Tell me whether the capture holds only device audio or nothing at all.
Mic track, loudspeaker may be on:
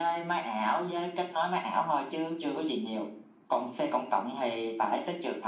Yes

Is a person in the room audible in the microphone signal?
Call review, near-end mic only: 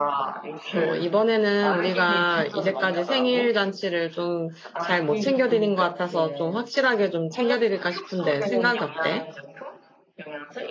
Yes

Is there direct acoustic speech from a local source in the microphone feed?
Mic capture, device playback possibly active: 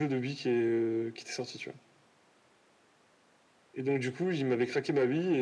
No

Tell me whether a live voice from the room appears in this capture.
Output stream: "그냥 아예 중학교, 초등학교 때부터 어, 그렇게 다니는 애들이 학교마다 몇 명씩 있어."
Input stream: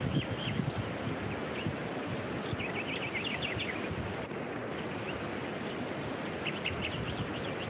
No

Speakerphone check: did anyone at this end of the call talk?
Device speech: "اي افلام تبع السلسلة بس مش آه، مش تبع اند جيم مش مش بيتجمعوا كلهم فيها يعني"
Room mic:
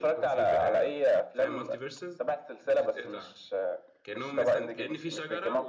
Yes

